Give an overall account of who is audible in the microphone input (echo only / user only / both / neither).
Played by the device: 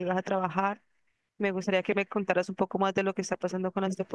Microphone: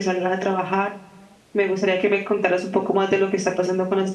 echo only